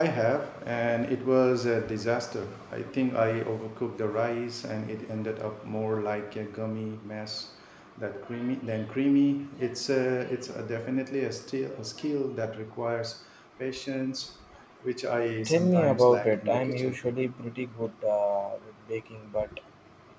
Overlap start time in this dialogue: 15.5 s

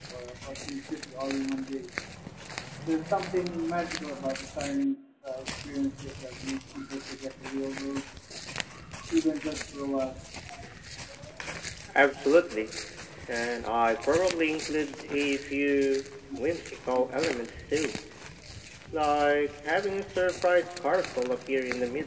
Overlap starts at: none

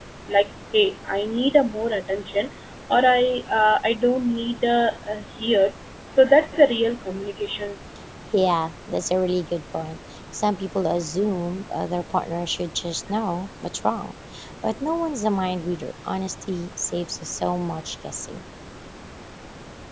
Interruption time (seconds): none

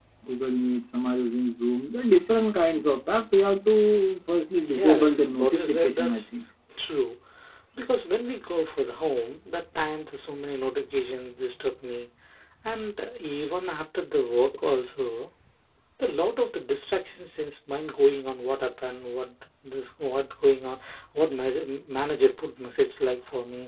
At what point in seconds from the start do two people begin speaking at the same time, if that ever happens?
4.6 s

